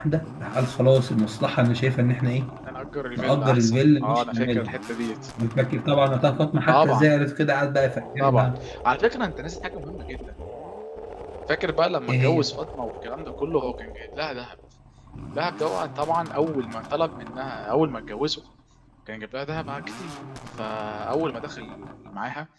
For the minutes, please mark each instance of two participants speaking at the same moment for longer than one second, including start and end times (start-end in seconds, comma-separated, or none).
3.2-4.7